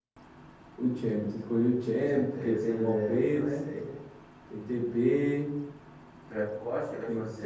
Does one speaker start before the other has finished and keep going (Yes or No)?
Yes